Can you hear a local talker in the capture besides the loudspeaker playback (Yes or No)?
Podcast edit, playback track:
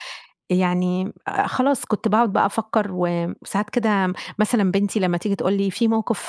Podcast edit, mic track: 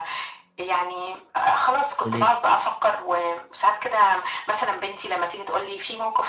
Yes